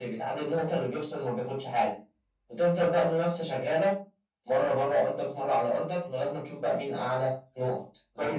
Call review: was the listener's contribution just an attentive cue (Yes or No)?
No